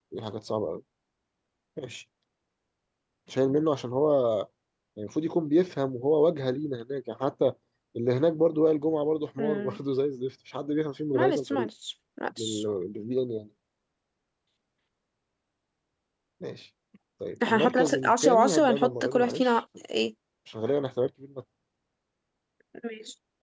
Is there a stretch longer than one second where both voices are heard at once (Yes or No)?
Yes